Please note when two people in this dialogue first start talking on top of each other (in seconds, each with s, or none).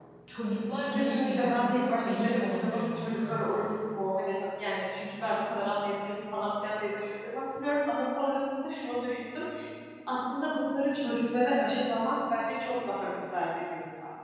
0.9 s